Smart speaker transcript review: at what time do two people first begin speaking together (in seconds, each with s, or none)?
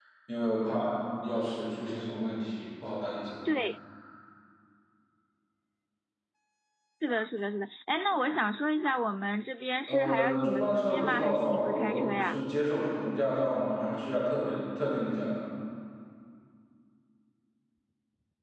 9.9 s